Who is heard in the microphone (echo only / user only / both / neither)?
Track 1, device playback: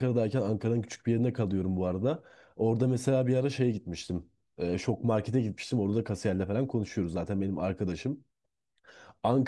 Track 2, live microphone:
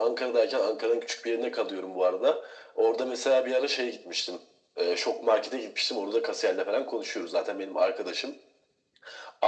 echo only